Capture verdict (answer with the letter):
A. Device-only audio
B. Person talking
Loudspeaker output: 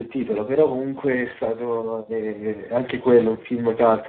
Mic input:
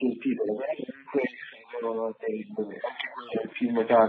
A